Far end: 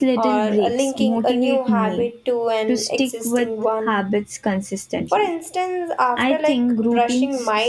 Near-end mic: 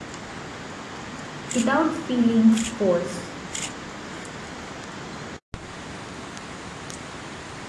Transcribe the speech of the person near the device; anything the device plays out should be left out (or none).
without feeling forced.